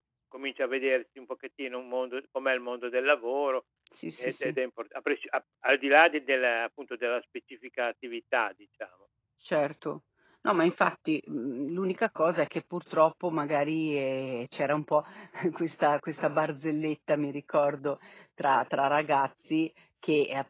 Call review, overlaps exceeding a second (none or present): none